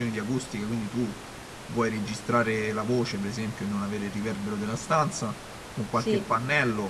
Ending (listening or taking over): listening